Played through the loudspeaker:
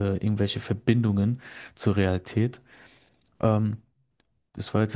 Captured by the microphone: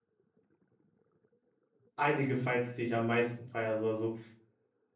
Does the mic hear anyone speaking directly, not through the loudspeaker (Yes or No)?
Yes